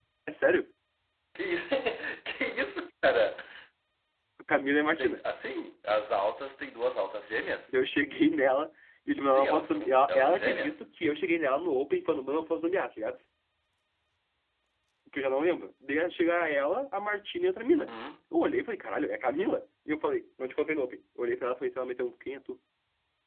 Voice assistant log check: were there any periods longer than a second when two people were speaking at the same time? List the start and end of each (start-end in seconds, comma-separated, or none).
9.3-10.8